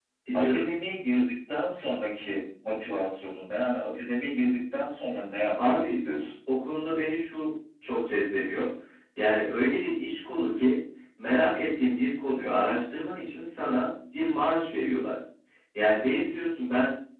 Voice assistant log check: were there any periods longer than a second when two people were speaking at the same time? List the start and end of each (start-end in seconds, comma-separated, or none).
none